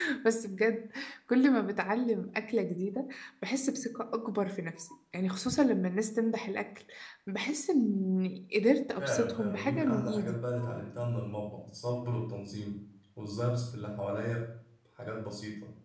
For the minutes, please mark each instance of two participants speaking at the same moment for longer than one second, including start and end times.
9.0-10.4

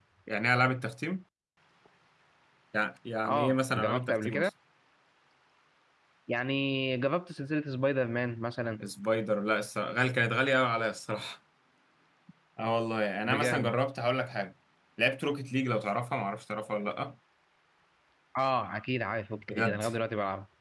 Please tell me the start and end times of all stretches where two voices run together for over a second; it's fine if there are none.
3.2-4.5

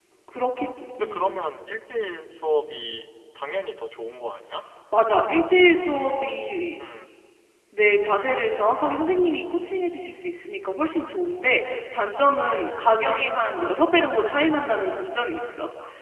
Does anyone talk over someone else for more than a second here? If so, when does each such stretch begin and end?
none

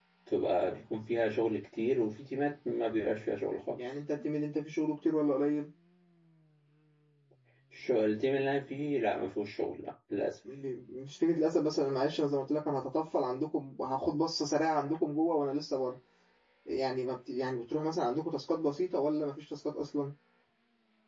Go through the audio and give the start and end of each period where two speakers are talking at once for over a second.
none

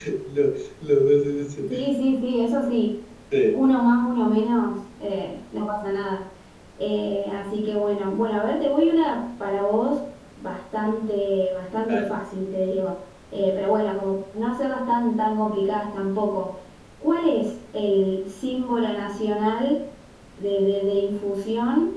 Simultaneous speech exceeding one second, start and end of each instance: none

